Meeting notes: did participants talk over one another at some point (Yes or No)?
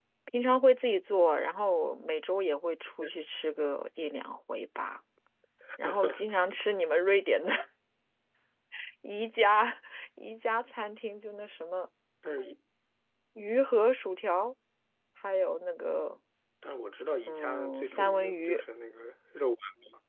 Yes